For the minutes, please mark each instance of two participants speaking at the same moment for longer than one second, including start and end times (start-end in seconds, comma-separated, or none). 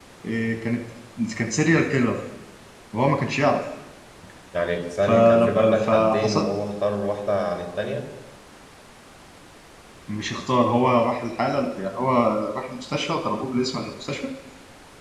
5.0-6.5